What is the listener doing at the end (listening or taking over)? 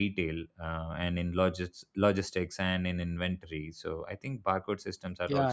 taking over